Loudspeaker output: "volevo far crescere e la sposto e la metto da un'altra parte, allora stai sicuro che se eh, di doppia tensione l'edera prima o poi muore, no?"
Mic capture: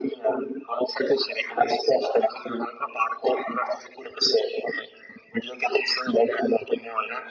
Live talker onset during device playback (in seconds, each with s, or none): none